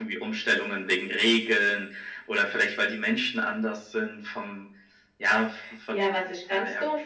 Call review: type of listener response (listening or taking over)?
taking over